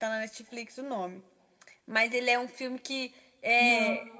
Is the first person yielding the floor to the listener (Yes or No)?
No